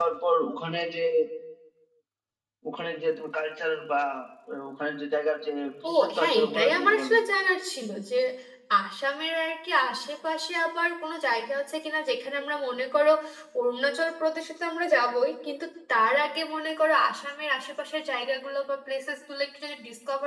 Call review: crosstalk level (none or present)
present